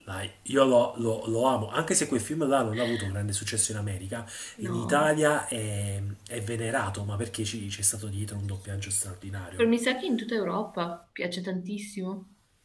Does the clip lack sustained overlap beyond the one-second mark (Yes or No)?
Yes